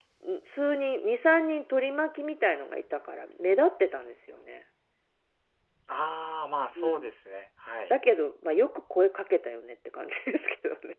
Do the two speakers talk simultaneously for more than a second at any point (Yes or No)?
No